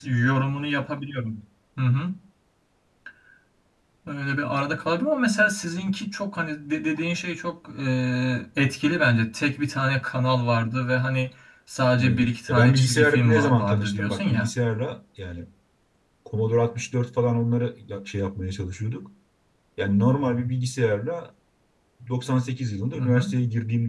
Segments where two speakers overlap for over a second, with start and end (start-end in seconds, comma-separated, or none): 12.0-14.5